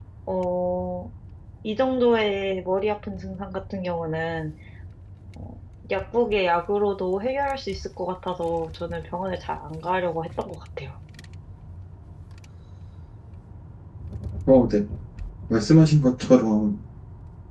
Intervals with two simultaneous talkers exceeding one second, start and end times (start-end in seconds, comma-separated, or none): none